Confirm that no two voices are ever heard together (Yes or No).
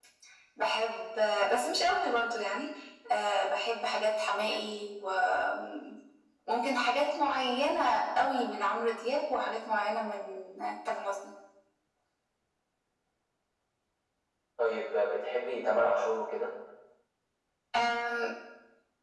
Yes